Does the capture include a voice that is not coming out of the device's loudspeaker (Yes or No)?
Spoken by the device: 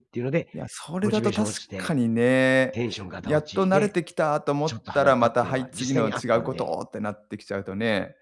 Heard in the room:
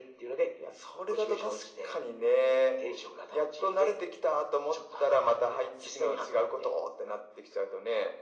No